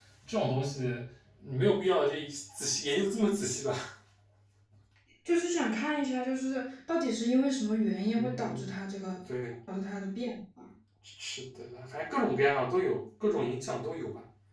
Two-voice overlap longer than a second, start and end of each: none

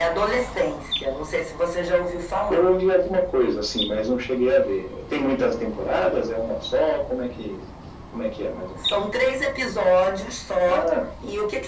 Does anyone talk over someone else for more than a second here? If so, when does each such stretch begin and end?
none

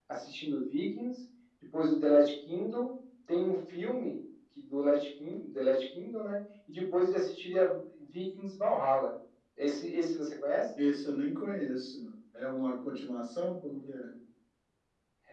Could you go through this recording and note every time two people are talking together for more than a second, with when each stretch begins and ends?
none

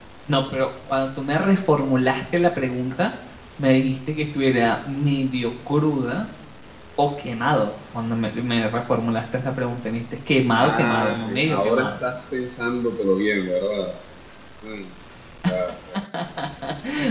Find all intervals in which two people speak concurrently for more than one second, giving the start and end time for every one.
10.5-11.9

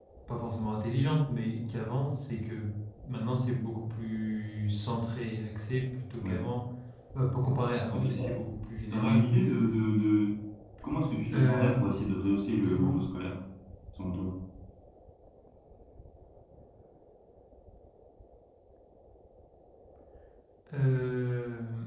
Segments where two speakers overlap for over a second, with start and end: none

